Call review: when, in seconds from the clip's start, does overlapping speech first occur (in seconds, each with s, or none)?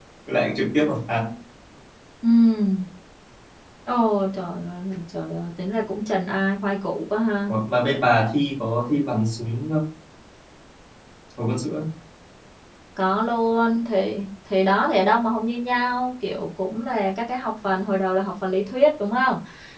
none